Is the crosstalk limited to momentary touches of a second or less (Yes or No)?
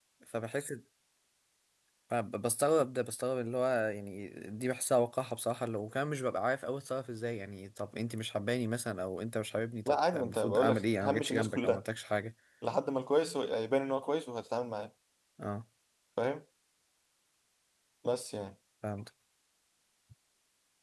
No